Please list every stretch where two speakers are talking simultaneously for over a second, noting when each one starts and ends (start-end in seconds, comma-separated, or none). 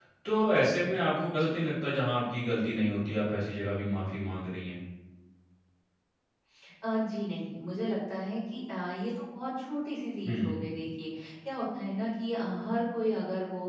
none